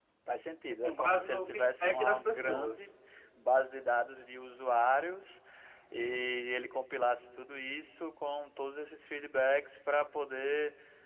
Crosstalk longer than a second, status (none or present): present